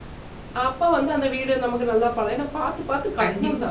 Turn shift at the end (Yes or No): No